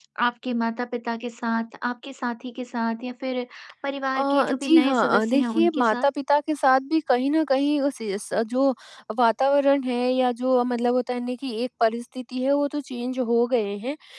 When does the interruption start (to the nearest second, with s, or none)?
4 s